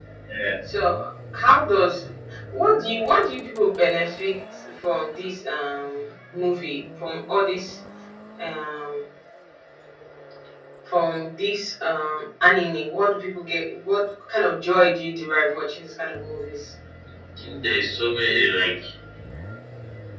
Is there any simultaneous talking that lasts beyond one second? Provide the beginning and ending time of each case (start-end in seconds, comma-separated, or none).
none